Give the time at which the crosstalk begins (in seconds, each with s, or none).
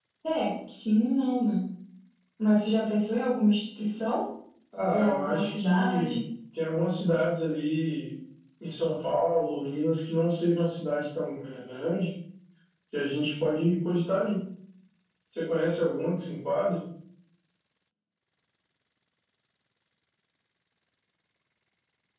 4.9 s